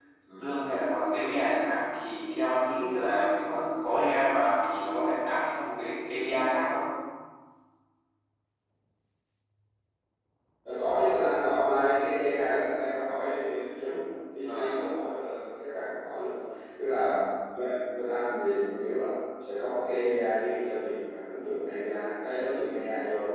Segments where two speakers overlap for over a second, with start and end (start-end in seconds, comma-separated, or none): none